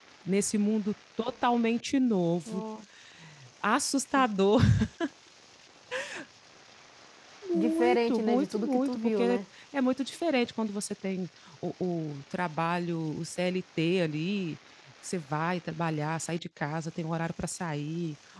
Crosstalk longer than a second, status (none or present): present